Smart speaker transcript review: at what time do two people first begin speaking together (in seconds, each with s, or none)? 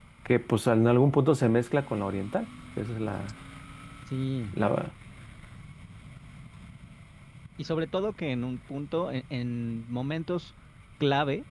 none